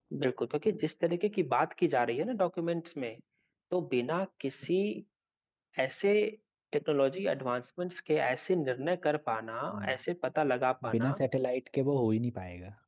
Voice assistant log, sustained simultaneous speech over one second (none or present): none